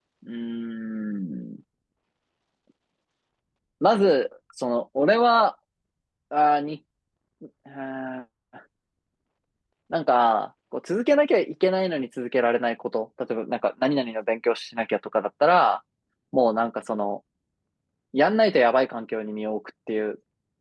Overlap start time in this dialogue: none

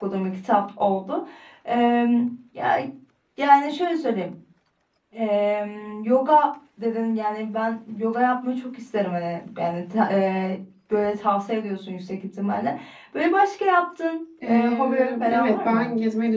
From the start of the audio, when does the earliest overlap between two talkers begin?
14.4 s

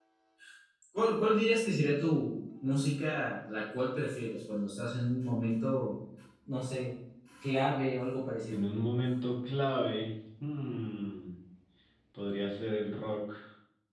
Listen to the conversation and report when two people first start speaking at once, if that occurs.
none

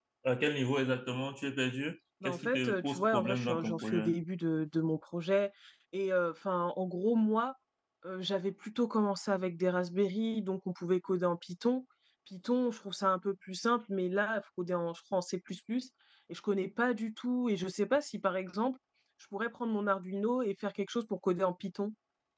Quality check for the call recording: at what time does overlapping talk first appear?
2.2 s

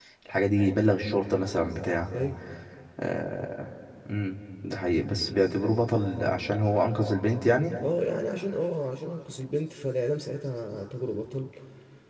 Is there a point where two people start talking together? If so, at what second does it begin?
none

